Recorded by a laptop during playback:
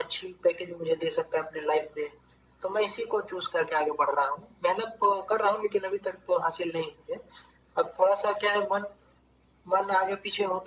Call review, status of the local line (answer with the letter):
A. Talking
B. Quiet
B